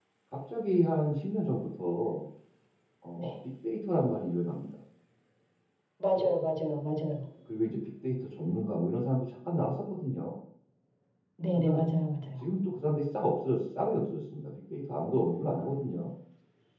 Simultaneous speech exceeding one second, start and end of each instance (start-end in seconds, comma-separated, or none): none